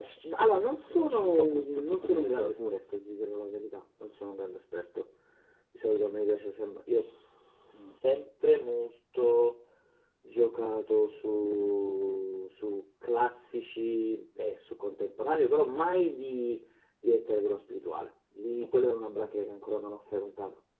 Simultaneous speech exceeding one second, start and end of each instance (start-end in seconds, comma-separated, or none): 0.8-2.7